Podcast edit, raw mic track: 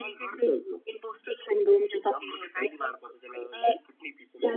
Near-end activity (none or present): none